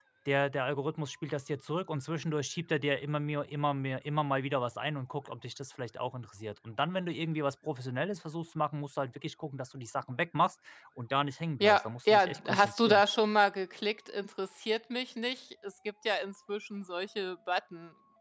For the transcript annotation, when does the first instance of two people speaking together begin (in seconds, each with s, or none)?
11.6 s